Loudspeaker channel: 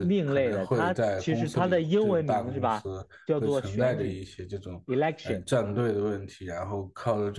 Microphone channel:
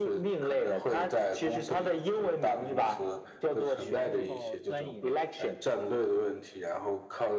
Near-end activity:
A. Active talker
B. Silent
A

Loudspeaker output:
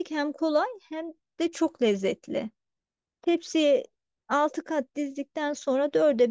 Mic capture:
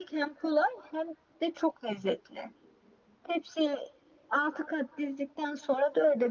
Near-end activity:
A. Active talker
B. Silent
B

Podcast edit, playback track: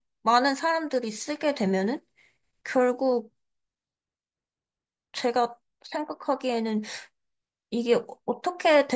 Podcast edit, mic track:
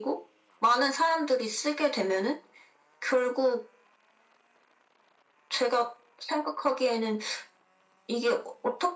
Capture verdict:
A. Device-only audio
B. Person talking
A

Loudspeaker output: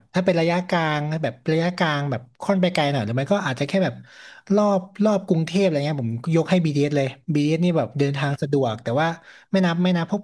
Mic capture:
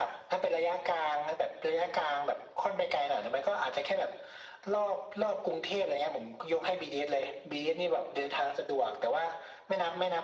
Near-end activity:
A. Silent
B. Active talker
A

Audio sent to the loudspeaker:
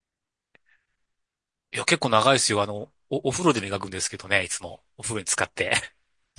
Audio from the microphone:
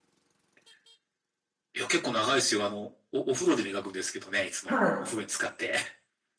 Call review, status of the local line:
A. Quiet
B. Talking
B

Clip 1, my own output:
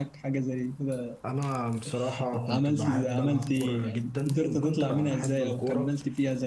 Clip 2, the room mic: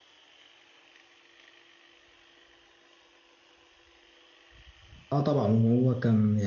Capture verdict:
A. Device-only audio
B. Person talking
B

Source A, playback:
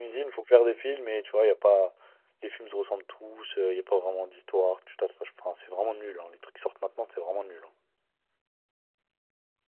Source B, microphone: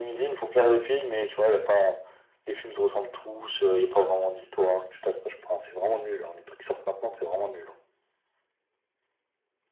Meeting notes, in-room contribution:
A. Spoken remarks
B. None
B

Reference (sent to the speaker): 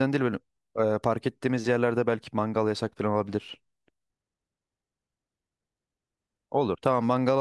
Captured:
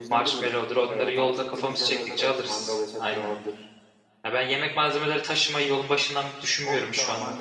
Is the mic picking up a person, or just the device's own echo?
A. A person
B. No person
A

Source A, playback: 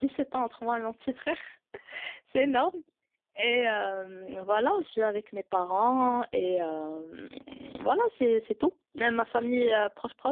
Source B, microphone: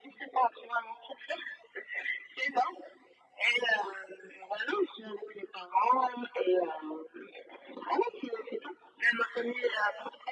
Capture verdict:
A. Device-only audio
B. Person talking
A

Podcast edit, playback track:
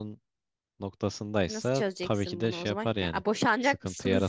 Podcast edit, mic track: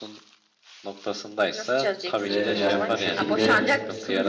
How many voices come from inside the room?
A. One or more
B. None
A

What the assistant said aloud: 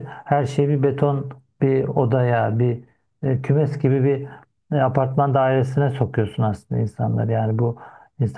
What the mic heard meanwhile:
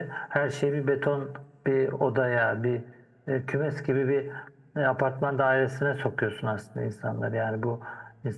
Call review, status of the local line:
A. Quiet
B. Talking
A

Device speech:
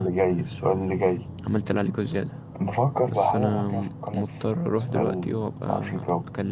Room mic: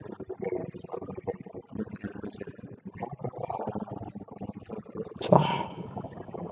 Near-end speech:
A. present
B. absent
A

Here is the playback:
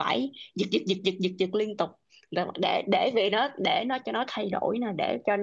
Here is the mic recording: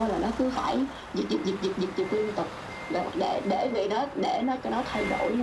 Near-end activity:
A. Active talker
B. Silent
B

